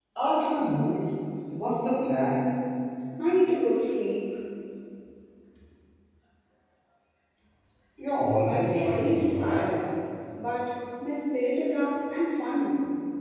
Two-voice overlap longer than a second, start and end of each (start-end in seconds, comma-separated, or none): 8.4-9.6